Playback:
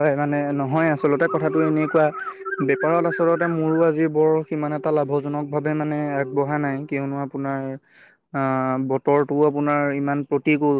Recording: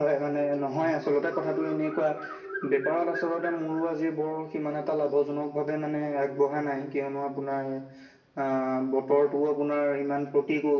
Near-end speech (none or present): none